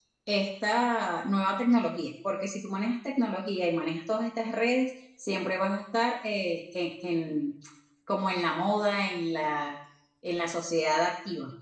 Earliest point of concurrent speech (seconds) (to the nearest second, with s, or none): none